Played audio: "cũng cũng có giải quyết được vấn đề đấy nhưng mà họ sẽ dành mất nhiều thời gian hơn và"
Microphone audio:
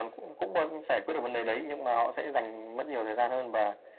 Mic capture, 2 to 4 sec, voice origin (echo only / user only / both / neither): echo only